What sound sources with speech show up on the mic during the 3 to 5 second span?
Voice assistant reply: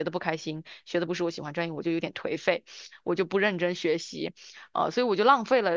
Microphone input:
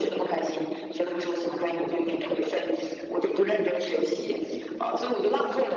echo only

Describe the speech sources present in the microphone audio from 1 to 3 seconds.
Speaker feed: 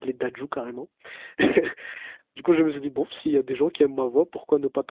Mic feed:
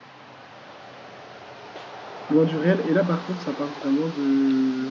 user only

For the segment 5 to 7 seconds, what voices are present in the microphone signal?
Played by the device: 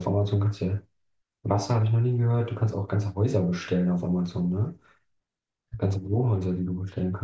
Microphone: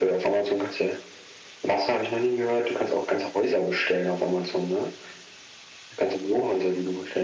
echo only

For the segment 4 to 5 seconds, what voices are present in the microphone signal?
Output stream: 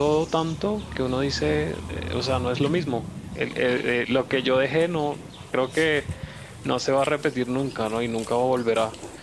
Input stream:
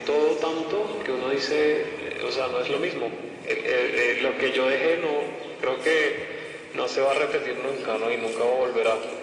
echo only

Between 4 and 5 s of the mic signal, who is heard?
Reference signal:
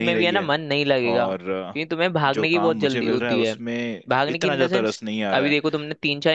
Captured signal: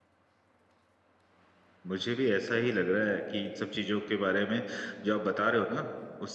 user only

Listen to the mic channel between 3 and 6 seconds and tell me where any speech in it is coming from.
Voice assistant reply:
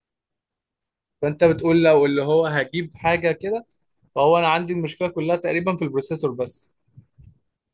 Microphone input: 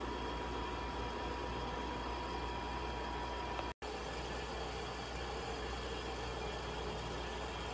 neither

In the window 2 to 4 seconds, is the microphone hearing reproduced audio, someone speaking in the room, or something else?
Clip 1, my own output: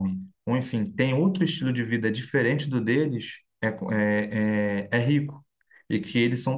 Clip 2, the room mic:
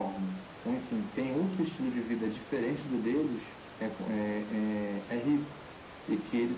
echo only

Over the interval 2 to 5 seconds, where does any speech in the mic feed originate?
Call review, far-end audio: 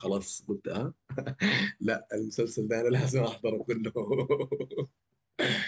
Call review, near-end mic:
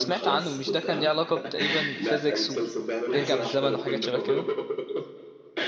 both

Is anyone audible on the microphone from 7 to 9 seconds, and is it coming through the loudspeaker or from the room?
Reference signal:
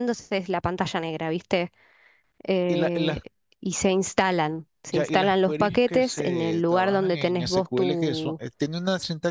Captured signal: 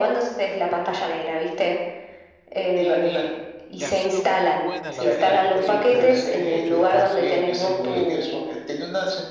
both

